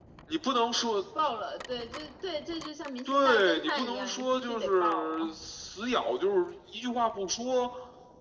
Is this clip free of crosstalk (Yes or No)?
No